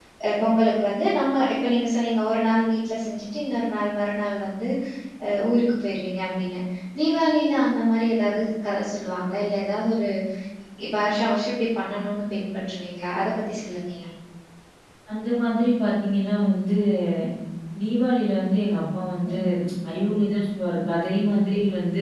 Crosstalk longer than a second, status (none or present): none